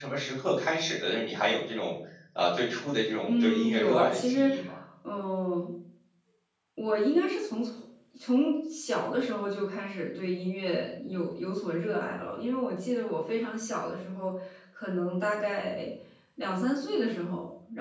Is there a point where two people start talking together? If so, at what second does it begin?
3.2 s

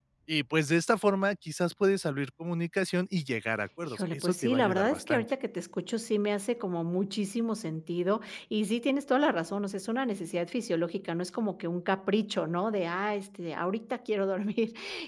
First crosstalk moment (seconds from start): 3.9 s

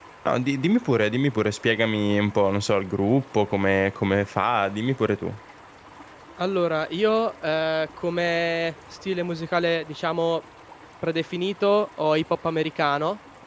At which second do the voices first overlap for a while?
none

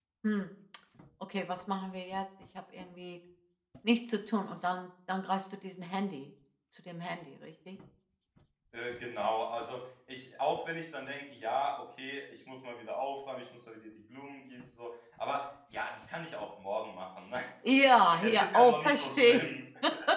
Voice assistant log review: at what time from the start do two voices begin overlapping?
18.2 s

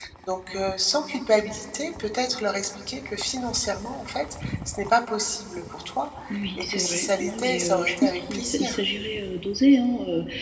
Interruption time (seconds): 6.6 s

